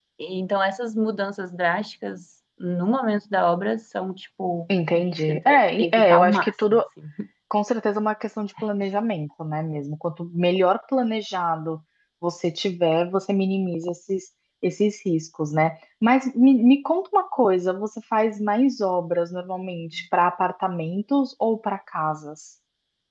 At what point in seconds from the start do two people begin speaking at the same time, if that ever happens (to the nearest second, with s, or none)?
5 s